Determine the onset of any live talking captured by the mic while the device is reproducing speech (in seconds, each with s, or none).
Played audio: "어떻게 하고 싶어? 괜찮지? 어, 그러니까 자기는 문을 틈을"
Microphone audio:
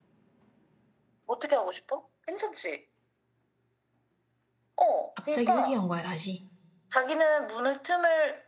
5.1 s